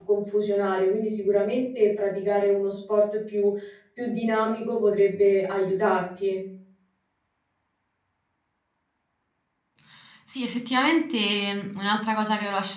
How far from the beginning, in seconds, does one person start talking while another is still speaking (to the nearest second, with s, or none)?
none